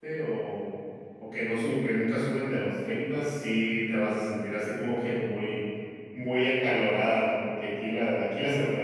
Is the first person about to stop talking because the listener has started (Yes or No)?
No